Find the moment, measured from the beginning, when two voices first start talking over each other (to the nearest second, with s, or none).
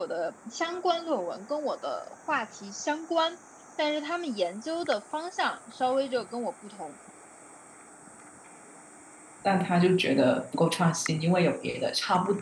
none